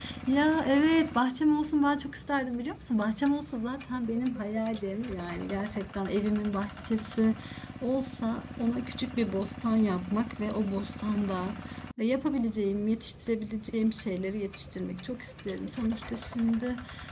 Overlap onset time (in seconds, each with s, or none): none